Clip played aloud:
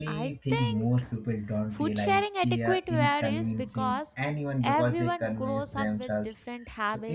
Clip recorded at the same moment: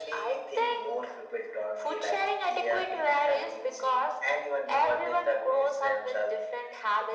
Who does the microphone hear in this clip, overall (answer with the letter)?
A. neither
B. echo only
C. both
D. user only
B